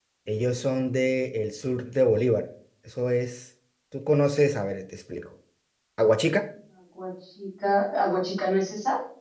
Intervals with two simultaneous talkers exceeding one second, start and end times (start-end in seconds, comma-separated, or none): none